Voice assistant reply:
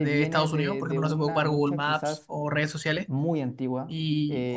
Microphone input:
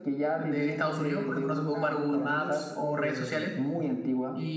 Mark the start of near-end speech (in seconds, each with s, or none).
2.1 s